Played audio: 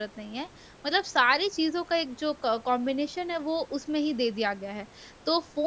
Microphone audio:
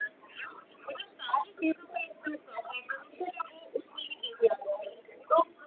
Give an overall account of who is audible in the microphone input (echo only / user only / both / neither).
echo only